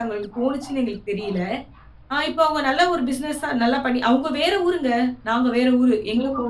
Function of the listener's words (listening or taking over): taking over